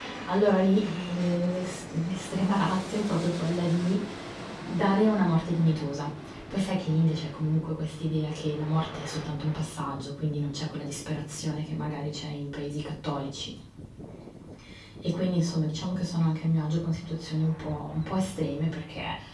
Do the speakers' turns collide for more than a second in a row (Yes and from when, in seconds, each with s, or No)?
No